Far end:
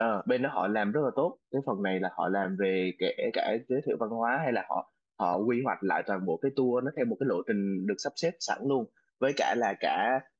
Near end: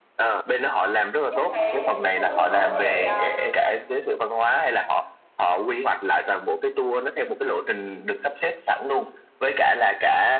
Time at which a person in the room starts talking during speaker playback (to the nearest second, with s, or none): 1 s